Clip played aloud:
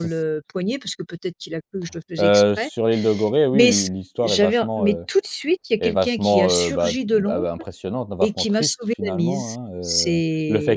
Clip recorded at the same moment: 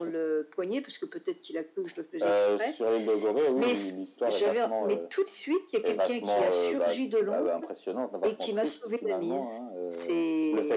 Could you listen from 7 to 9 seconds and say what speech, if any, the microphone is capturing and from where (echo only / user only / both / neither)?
echo only